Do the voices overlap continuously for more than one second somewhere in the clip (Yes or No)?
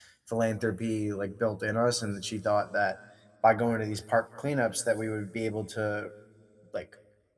No